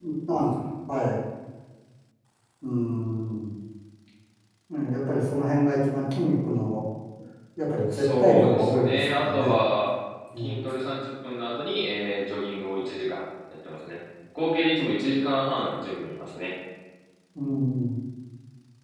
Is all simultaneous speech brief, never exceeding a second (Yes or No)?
No